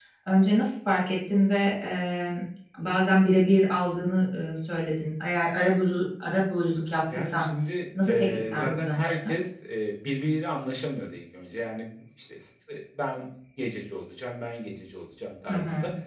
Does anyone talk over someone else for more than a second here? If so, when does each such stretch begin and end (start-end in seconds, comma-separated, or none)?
8.1-9.3